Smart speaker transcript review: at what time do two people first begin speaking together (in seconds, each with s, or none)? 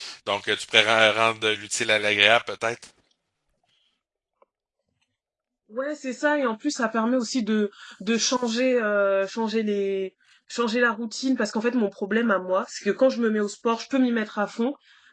none